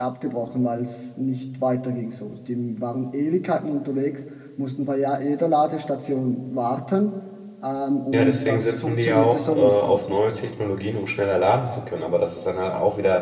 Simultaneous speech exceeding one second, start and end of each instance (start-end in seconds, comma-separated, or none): 8.1-10.0